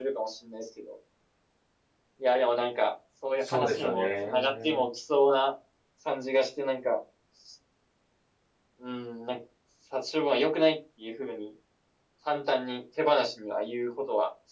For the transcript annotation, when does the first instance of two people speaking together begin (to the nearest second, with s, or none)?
3 s